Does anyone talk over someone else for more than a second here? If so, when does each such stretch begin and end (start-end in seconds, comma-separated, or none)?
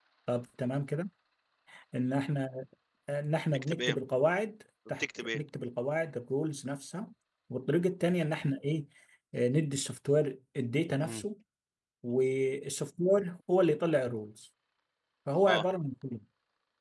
none